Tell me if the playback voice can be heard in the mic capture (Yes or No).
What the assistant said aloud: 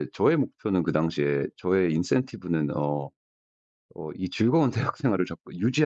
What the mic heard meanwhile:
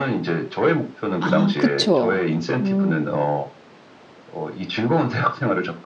Yes